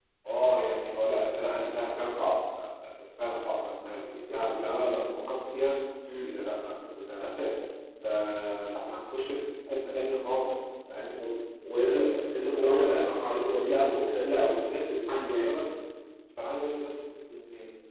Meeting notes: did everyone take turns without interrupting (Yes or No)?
No